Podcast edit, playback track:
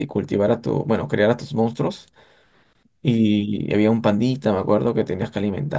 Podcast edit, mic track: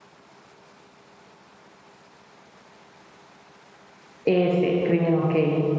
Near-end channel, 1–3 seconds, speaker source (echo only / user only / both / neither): neither